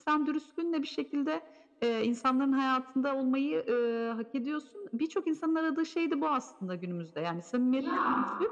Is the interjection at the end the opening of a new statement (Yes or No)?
No